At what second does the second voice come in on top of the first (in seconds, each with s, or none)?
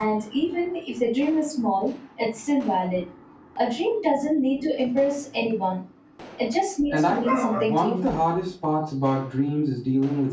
6.9 s